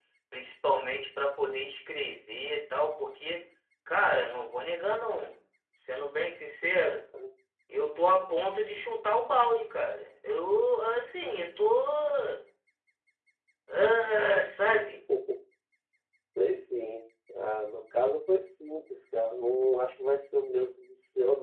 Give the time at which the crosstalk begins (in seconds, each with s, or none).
none